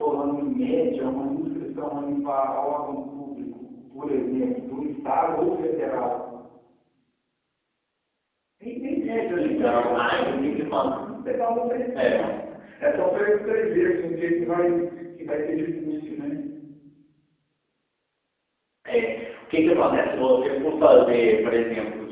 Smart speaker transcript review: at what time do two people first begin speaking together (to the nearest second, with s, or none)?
9 s